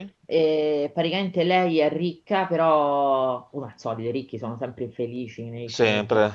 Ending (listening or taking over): listening